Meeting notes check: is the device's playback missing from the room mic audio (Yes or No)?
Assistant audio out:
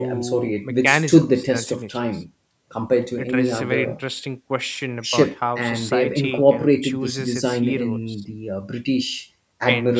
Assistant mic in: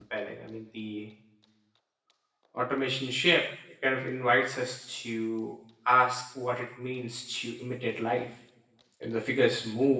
Yes